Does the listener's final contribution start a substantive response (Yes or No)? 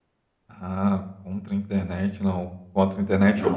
No